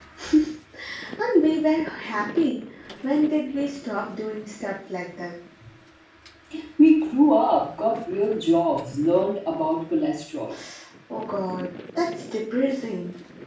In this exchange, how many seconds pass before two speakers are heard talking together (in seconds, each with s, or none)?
none